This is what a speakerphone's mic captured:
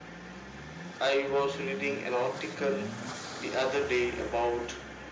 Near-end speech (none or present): none